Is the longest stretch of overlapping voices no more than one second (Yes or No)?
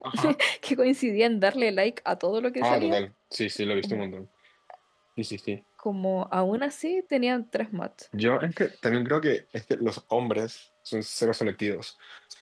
Yes